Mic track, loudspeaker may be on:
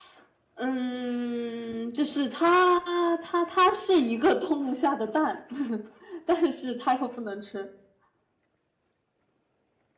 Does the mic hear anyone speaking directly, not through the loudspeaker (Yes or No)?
Yes